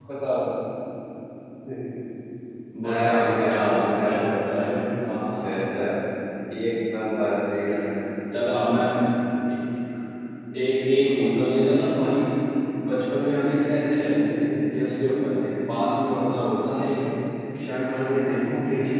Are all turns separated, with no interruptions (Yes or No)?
No